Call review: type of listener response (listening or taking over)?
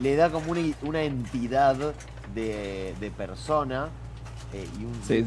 listening